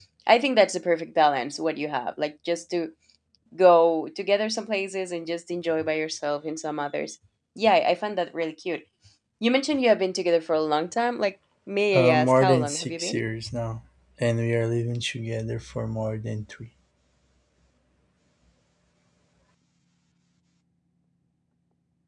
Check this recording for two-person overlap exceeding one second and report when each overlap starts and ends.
11.9-13.2

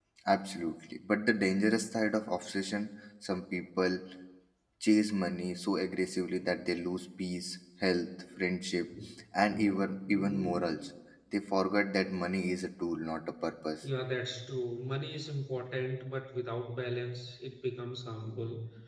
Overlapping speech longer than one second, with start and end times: none

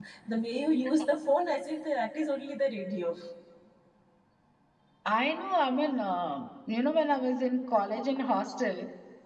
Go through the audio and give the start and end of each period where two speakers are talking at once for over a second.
none

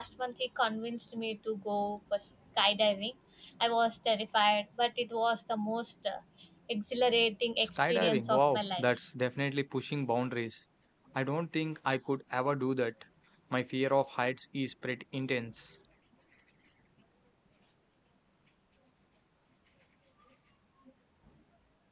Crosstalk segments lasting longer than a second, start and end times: 7.6-9.0

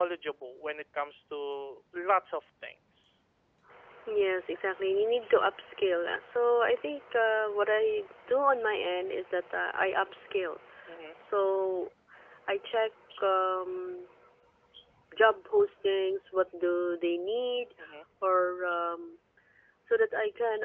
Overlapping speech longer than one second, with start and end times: none

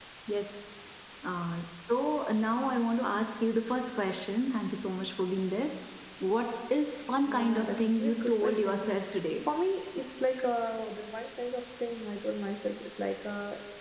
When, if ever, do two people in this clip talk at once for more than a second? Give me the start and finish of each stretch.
7.2-8.8

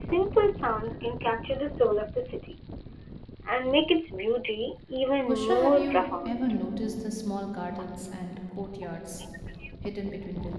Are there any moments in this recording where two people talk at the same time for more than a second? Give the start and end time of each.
5.3-6.6

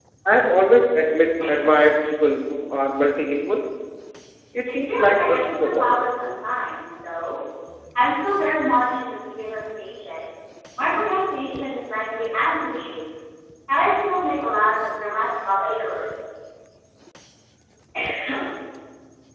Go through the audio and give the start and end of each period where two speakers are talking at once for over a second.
4.7-6.1

